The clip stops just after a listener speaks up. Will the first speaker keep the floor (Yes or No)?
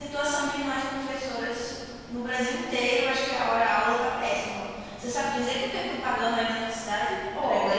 No